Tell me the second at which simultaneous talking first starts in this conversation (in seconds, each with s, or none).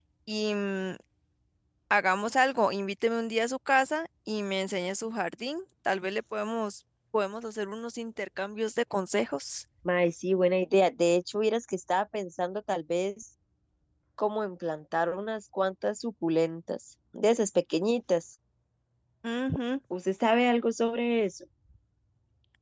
none